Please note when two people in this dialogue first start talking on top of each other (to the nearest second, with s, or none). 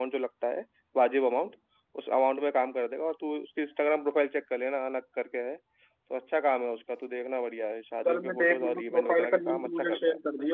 8 s